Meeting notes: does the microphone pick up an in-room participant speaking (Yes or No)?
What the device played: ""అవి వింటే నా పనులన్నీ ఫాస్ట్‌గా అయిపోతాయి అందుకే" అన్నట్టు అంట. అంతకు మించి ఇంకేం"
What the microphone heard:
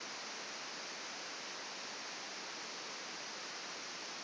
No